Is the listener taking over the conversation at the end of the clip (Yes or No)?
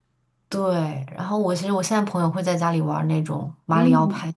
Yes